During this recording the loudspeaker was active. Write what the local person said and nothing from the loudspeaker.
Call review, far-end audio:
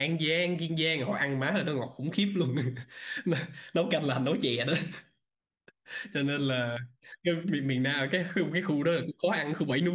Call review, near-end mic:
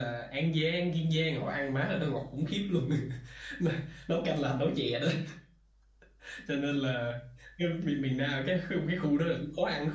none

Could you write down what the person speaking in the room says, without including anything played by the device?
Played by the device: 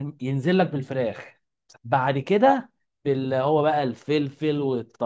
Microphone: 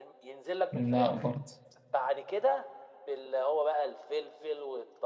لا برضه

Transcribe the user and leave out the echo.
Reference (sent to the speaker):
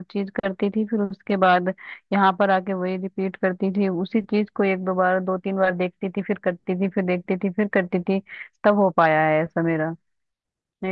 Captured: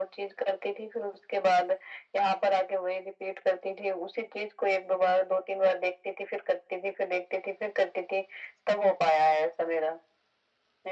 none

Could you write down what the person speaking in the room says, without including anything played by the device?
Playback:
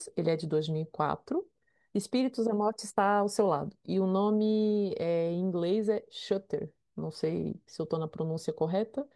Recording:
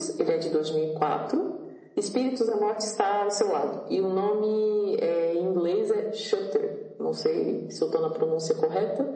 none

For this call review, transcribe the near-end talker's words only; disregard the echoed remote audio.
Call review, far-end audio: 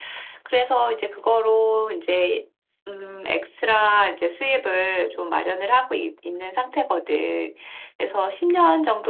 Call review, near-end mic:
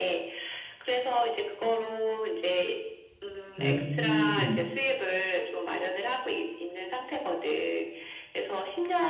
음,

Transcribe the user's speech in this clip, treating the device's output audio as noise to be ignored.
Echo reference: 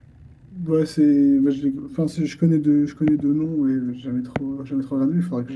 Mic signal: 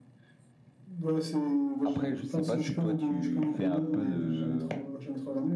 Après, je sais pas si toi, tu fais un peu de...

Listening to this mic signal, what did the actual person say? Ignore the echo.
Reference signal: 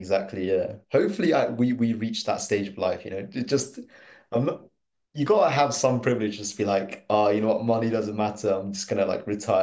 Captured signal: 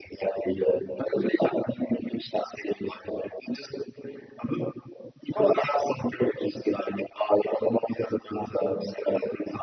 none

